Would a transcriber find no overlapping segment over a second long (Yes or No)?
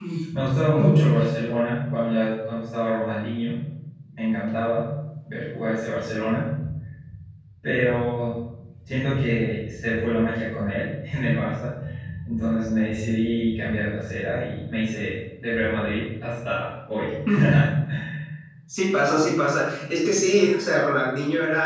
Yes